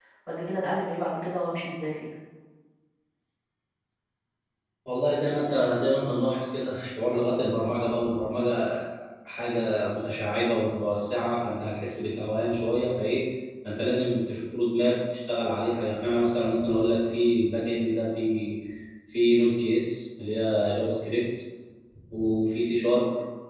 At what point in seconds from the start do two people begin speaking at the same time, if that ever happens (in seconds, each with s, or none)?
none